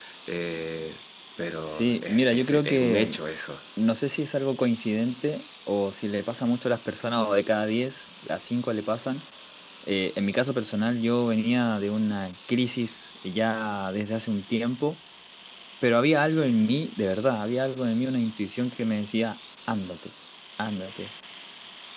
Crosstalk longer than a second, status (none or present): present